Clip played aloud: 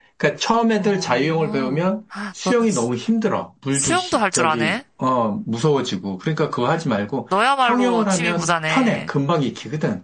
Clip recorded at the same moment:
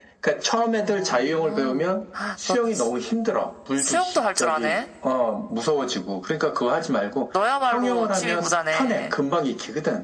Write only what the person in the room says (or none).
none